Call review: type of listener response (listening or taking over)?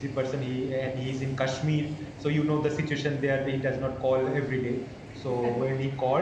listening